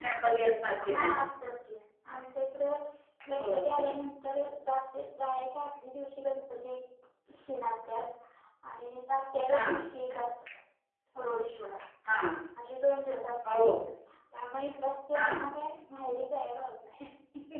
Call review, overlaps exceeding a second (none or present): none